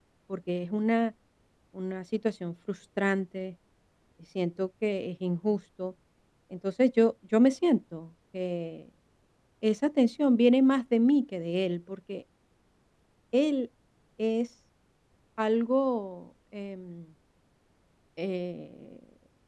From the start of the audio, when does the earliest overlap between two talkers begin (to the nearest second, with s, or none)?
none